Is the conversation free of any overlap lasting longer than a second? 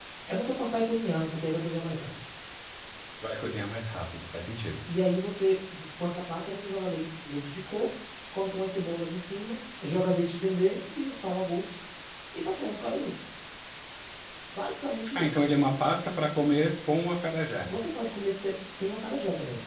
Yes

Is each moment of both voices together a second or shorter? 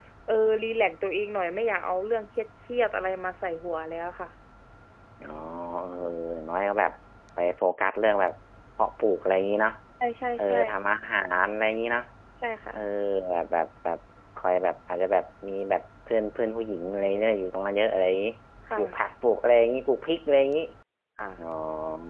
Yes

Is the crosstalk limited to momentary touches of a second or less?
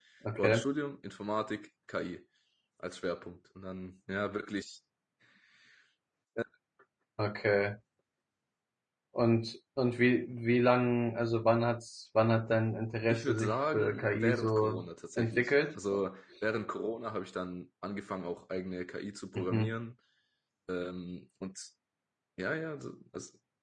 No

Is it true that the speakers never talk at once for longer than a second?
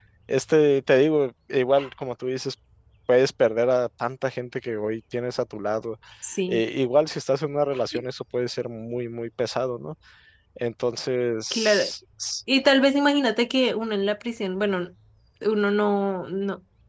Yes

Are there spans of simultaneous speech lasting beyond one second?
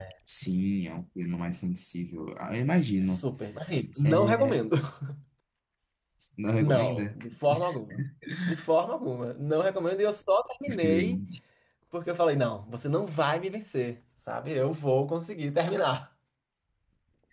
No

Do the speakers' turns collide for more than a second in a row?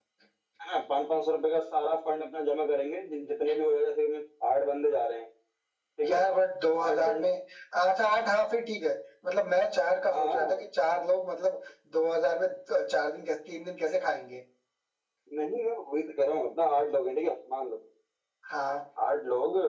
No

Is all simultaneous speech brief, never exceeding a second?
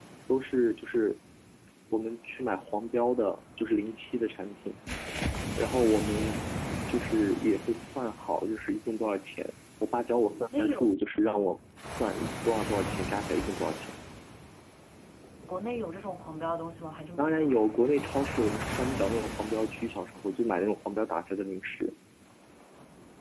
Yes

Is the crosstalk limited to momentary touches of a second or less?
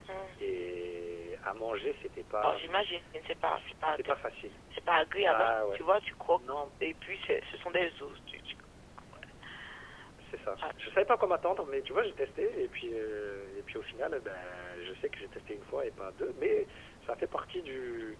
Yes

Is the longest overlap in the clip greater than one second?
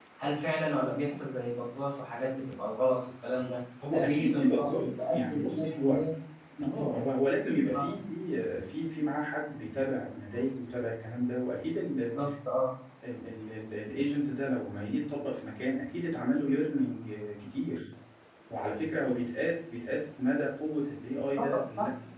Yes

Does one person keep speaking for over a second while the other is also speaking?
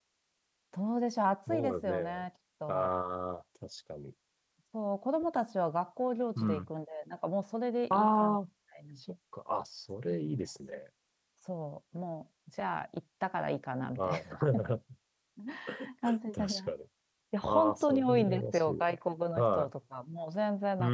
Yes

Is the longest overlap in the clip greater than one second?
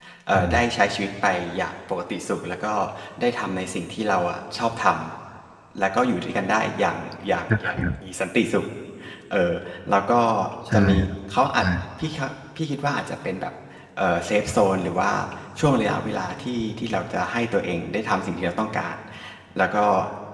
No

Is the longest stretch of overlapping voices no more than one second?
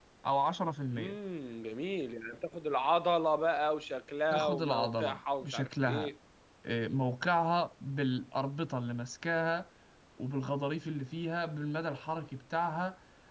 No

